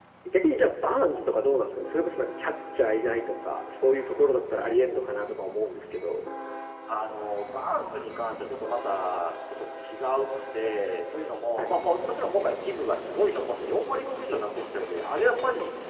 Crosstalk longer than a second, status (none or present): none